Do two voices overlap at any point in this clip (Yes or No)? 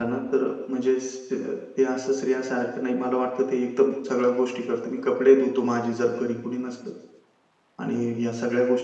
No